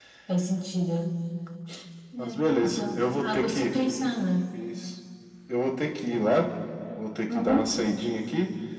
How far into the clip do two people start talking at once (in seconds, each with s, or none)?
2.2 s